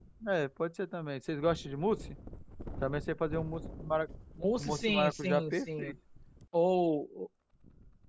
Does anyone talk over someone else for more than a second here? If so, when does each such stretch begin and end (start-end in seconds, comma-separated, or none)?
4.6-5.9